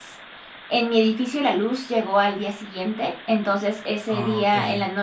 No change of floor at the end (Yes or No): Yes